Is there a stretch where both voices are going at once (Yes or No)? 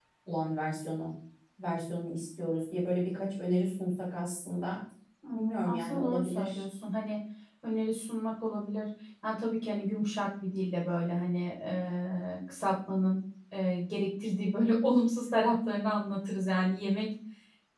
Yes